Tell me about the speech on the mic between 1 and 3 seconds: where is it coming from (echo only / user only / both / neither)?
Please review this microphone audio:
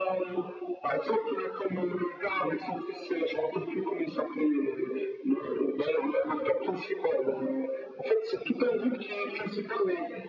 echo only